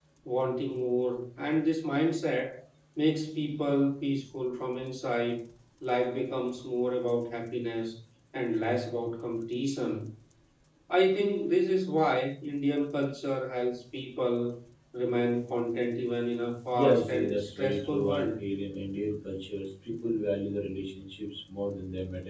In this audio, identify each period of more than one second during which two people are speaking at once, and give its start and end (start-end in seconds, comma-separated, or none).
16.7-18.2